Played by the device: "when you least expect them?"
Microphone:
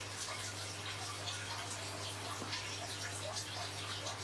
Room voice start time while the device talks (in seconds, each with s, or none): none